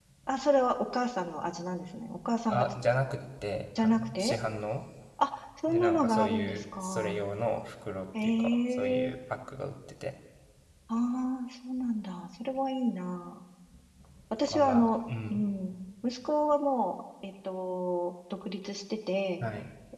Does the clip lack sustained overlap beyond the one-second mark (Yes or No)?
No